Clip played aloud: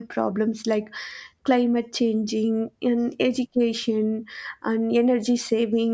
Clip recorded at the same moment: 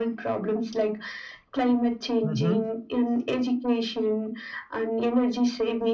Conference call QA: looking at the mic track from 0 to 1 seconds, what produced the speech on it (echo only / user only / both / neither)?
echo only